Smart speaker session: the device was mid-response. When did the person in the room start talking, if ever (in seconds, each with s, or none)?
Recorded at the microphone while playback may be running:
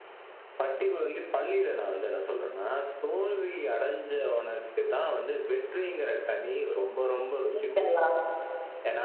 7.6 s